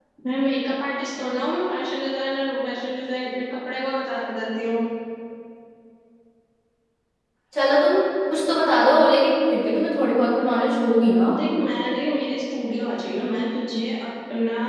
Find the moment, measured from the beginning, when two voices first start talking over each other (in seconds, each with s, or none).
none